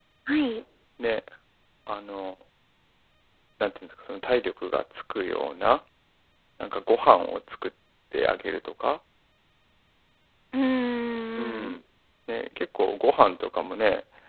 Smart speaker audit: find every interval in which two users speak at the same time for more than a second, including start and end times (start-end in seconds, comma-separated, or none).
none